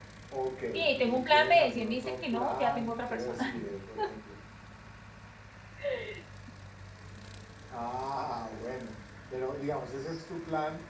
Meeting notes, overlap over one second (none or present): present